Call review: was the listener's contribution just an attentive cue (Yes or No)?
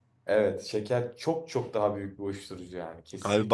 No